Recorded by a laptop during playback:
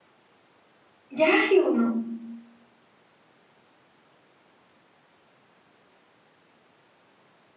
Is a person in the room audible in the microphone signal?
Yes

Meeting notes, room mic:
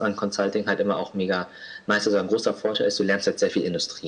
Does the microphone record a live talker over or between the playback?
No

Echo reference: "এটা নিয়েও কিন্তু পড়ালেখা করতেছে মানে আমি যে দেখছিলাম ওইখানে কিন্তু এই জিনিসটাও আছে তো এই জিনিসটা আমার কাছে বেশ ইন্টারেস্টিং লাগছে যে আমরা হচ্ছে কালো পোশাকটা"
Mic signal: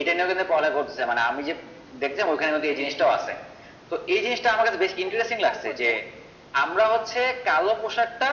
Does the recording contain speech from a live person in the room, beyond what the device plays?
Yes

